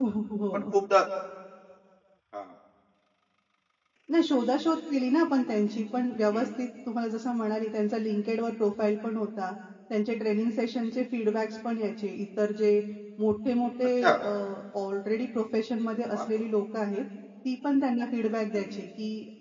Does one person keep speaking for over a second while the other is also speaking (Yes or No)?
No